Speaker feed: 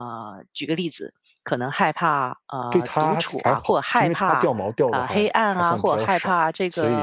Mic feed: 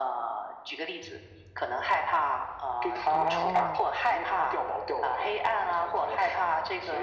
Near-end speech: present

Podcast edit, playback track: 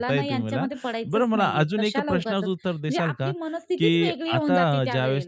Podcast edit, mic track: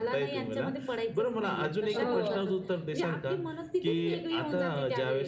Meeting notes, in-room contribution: present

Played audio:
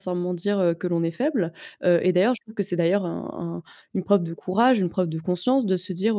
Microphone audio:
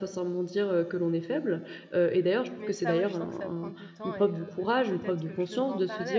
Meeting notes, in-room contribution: present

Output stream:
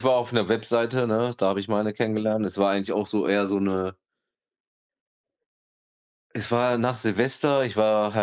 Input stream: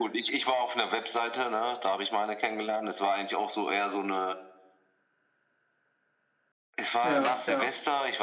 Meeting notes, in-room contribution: present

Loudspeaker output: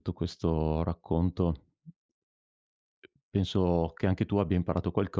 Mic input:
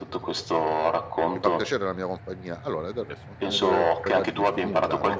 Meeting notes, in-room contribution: present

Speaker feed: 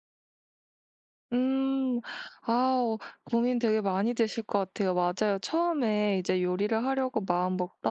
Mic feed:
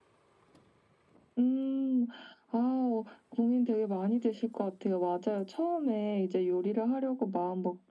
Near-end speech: none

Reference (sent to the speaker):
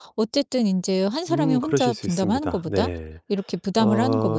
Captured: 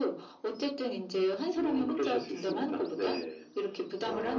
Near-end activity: none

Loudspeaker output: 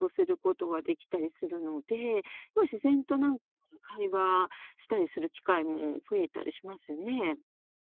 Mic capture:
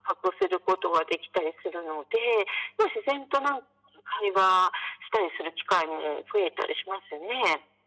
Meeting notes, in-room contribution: none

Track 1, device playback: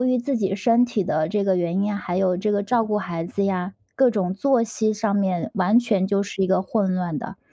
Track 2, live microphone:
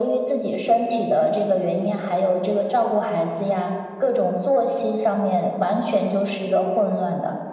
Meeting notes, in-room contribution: none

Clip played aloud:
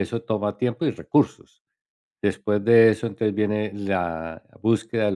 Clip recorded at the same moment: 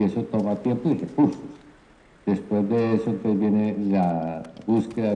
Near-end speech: none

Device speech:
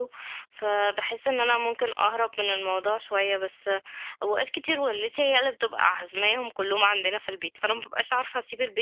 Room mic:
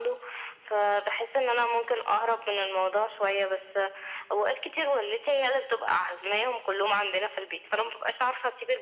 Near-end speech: none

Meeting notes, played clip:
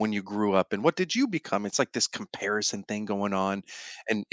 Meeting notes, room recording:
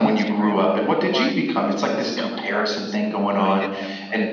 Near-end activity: present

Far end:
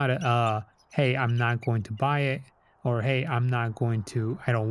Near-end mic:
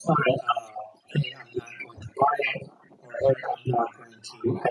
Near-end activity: none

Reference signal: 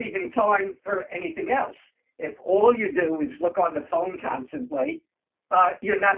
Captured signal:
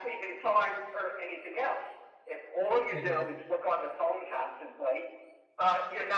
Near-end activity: present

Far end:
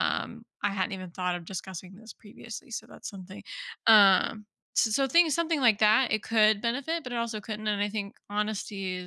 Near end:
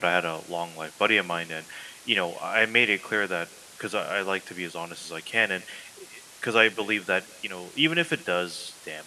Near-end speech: present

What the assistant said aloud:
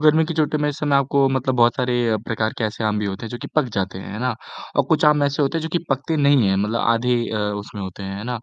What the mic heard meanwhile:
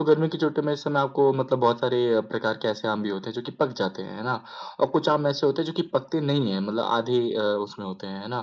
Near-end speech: none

